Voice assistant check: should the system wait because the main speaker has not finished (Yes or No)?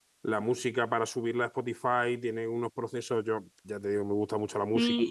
No